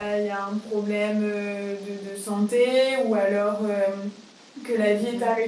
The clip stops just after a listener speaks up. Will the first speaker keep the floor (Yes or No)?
Yes